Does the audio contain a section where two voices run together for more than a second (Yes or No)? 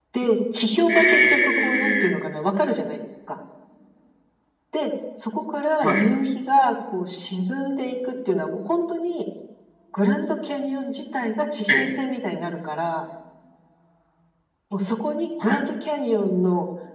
Yes